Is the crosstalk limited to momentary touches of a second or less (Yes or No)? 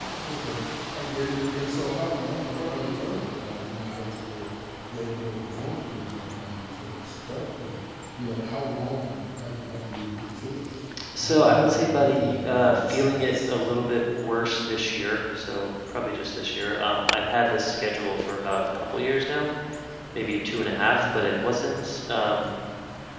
No